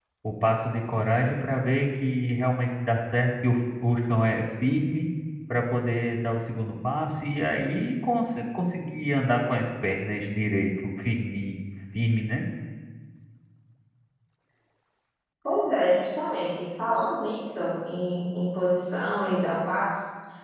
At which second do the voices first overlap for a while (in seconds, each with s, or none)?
none